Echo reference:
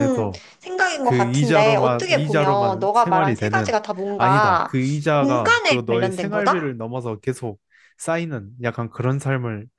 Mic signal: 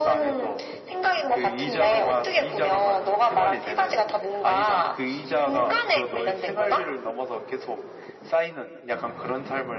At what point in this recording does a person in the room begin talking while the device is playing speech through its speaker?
none

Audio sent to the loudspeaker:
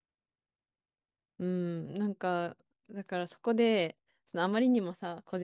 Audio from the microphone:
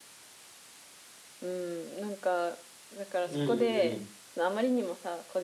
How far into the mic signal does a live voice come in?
3.2 s

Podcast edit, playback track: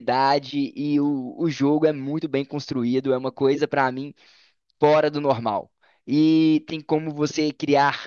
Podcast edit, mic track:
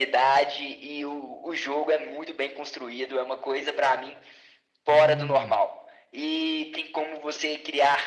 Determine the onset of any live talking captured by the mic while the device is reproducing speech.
4.9 s

